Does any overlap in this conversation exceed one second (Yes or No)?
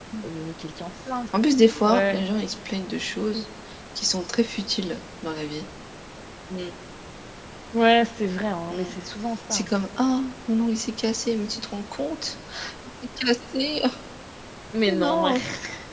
No